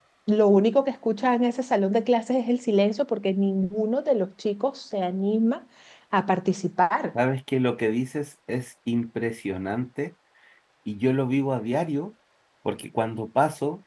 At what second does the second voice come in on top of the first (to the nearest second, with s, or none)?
none